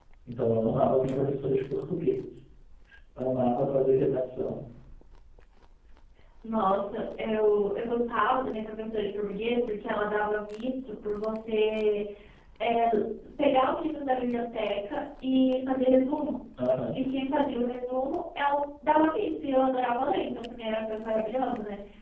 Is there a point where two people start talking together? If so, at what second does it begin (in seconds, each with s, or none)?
none